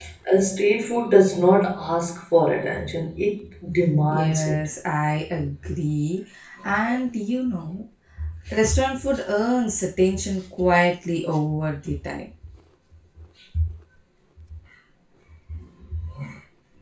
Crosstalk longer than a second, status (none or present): none